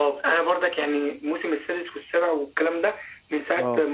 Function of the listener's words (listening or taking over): listening